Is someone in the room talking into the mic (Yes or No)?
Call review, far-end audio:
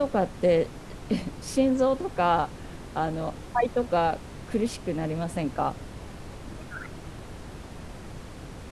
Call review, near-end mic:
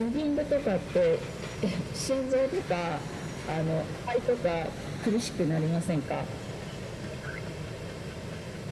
No